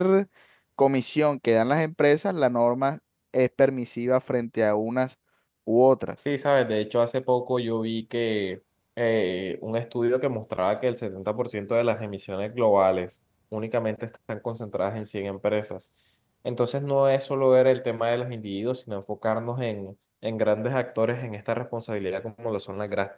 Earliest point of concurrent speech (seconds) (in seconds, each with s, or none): none